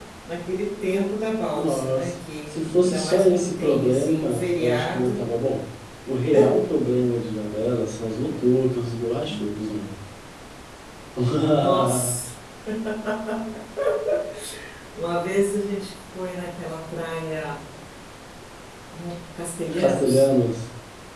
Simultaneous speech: Yes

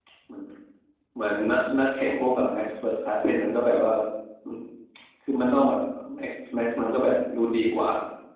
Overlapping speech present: No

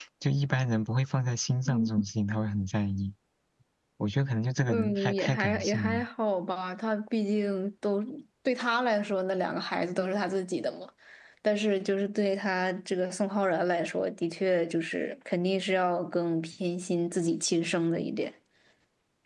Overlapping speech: Yes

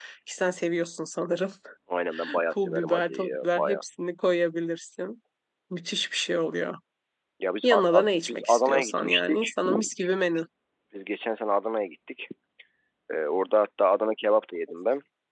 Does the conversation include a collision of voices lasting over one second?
Yes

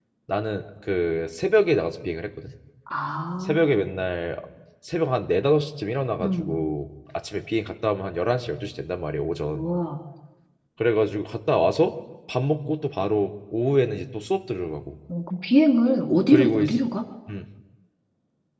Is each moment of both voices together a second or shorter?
Yes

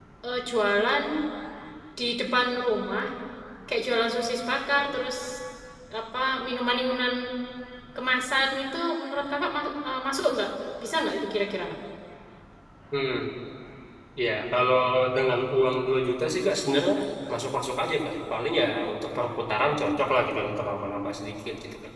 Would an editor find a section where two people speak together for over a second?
No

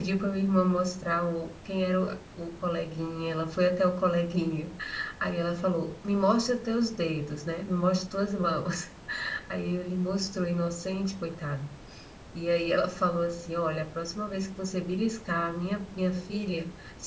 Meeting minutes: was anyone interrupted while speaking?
No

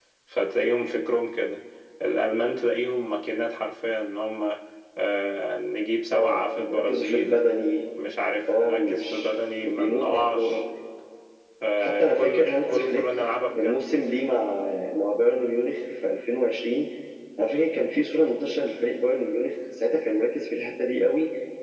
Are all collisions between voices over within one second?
No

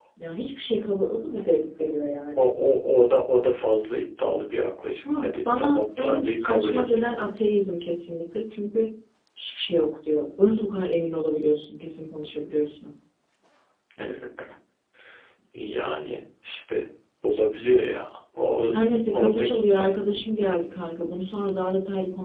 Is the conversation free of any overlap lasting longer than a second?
No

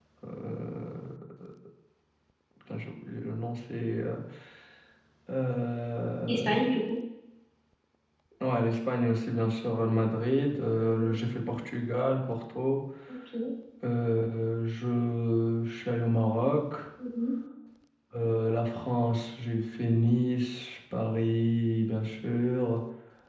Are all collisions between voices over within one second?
Yes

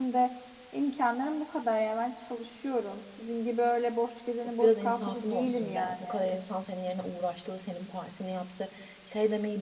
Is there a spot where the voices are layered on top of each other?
Yes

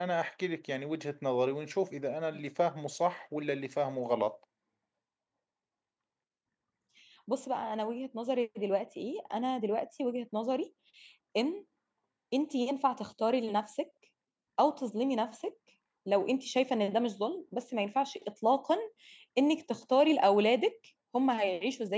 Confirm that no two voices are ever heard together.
Yes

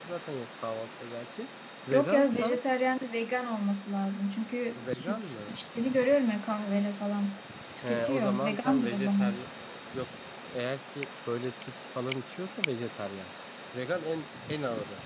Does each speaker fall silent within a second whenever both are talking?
No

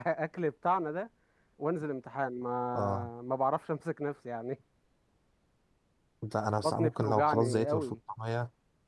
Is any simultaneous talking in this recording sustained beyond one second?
Yes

